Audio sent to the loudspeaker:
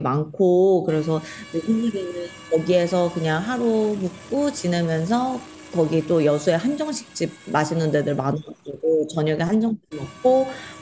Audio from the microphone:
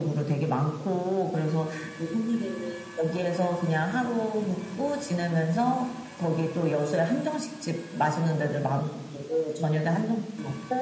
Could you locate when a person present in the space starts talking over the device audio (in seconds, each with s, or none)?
none